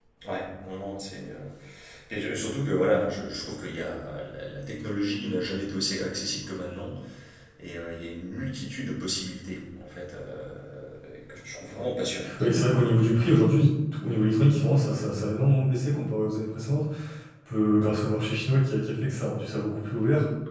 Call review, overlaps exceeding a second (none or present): none